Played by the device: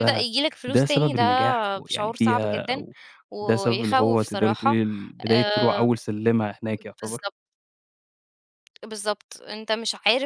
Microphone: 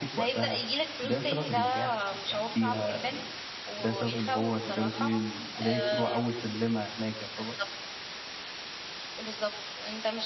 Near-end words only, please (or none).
none